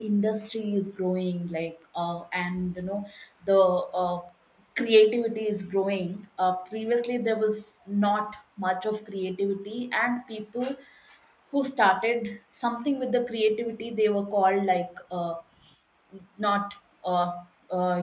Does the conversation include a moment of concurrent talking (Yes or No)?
No